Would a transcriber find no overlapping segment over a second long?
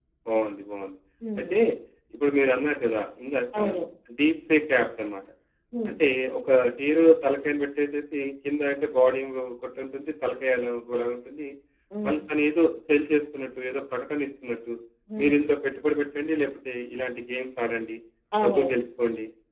Yes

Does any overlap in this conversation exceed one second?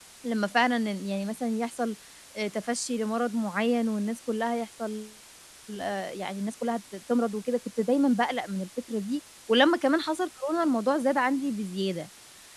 No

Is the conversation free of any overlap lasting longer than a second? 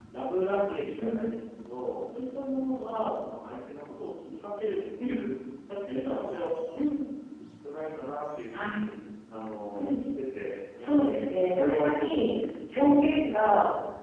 No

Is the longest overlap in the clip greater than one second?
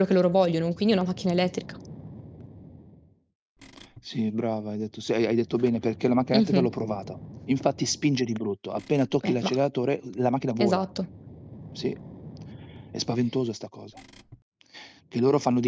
No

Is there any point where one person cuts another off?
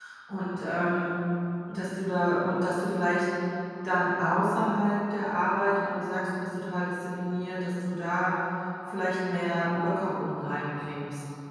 No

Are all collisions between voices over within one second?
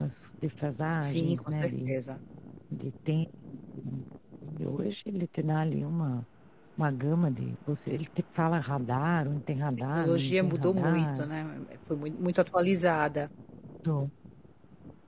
No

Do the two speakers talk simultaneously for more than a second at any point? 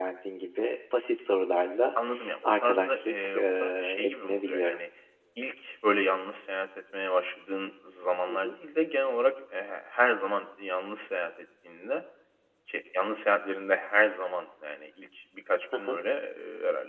Yes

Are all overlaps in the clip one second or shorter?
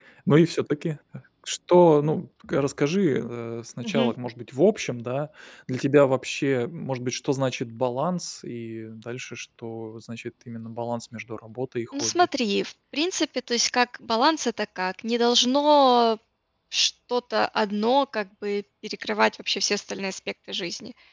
Yes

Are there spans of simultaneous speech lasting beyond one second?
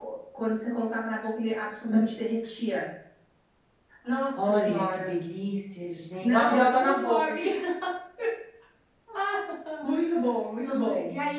Yes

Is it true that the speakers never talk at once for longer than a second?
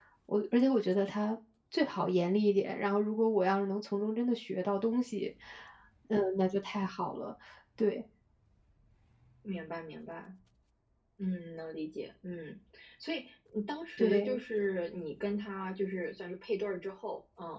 Yes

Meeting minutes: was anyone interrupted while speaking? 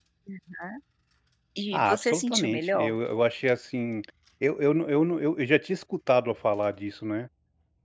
Yes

